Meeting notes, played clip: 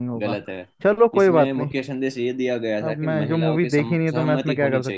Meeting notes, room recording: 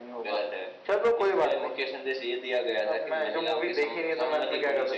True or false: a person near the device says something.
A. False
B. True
A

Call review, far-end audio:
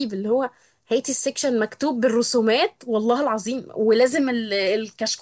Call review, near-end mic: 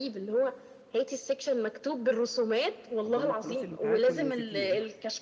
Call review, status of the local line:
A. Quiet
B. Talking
B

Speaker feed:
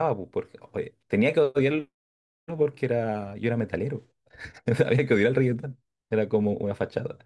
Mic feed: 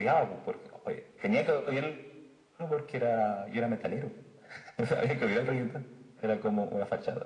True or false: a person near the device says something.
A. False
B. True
A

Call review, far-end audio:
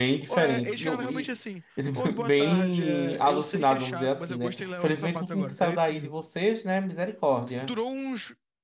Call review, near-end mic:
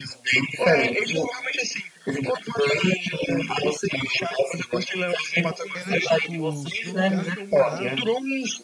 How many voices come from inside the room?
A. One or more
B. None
A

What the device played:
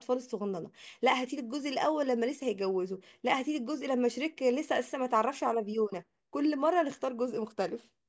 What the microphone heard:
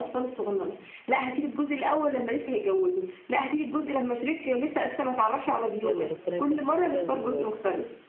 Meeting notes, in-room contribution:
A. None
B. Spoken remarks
B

